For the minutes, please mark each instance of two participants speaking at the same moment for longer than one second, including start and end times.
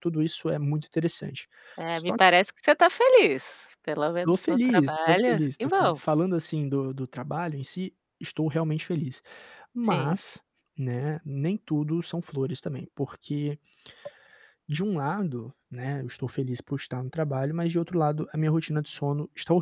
4.2-6.0

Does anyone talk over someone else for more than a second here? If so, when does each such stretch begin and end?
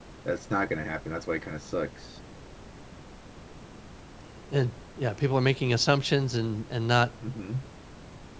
none

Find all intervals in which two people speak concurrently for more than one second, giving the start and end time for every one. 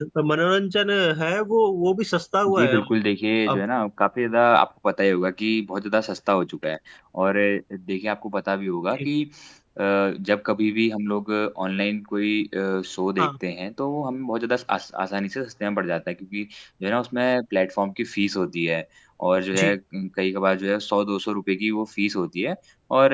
none

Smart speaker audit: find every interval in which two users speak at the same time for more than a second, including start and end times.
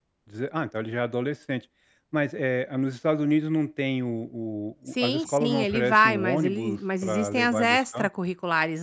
4.9-8.1

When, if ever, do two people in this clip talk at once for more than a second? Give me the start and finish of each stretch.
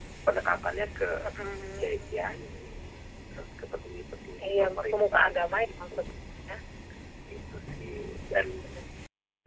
4.5-6.0

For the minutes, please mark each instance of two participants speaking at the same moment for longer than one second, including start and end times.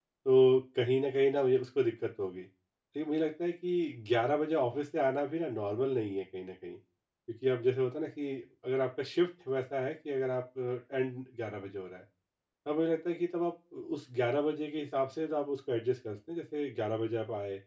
none

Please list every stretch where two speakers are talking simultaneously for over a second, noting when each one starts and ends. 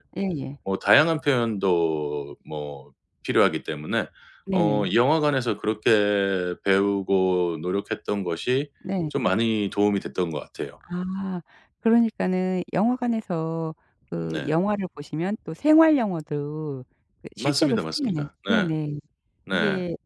17.4-18.7

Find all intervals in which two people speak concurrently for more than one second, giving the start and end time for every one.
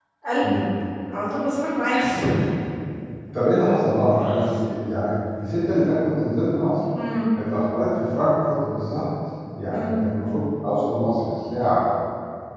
none

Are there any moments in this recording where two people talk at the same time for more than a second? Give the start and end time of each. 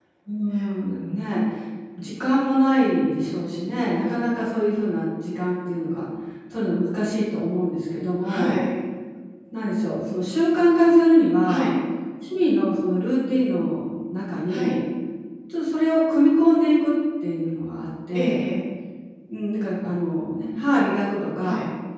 none

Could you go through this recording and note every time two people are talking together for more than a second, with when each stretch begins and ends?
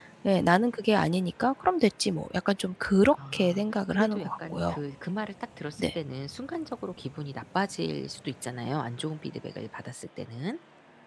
3.3-4.8

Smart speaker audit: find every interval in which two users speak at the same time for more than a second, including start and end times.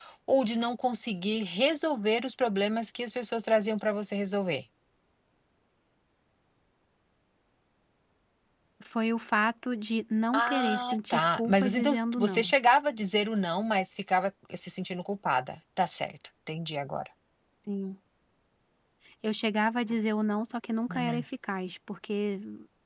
10.3-12.5

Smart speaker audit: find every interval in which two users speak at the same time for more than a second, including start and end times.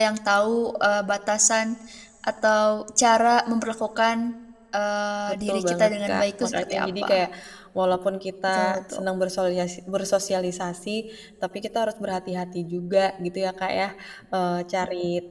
5.3-7.2

